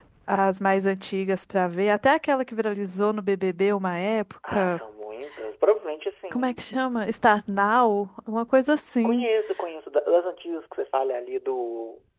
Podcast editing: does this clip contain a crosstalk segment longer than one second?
No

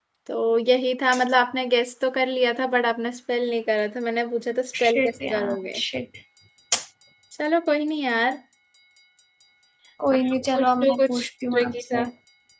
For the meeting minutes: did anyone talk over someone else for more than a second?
Yes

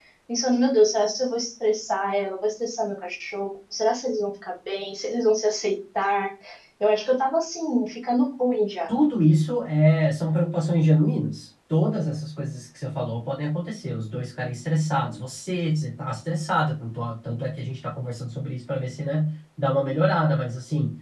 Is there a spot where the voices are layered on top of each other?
No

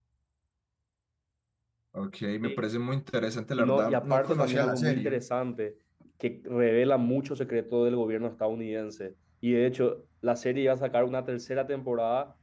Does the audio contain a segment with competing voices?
Yes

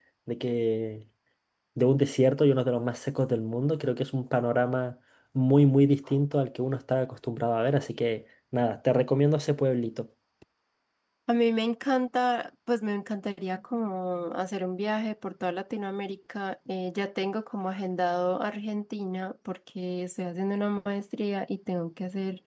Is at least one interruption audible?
No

